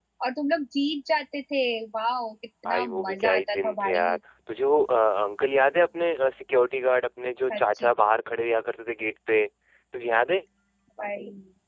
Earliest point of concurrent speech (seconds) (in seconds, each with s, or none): 2.6 s